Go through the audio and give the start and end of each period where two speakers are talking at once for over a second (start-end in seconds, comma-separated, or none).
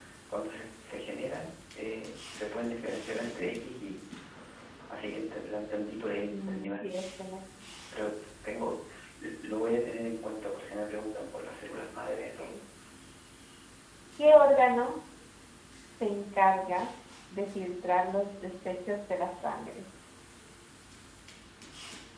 none